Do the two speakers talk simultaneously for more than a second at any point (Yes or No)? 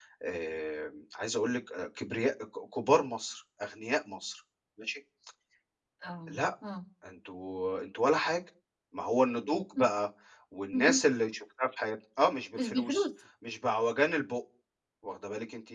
No